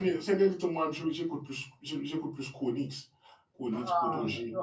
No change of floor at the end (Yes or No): No